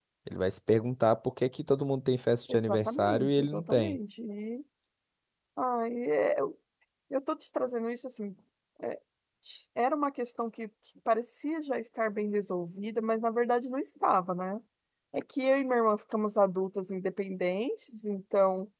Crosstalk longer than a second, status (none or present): present